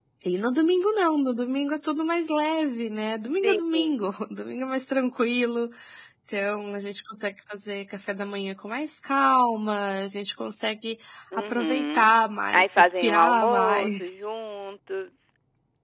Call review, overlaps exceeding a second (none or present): present